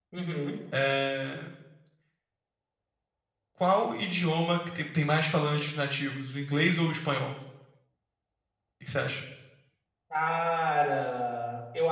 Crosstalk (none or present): none